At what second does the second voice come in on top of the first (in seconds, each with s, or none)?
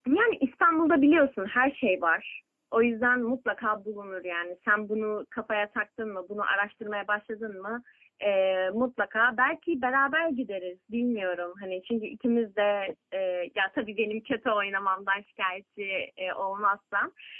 none